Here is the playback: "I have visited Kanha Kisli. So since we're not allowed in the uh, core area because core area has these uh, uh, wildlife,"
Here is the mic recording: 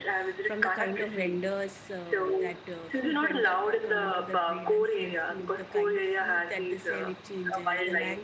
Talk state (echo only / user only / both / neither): both